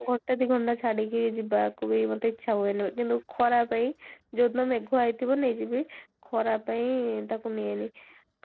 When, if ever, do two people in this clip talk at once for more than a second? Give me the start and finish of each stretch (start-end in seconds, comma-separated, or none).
none